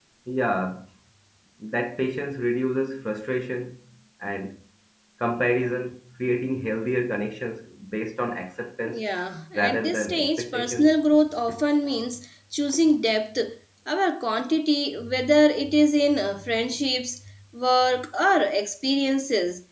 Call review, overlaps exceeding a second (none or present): present